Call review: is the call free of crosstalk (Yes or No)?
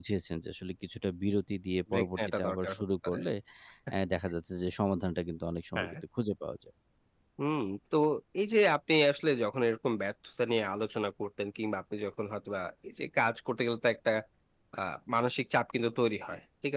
No